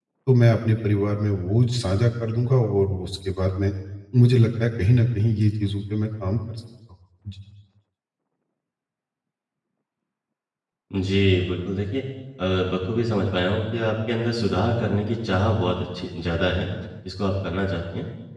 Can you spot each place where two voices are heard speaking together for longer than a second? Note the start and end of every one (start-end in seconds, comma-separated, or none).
none